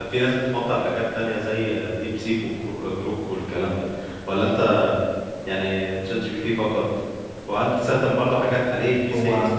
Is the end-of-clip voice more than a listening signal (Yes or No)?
No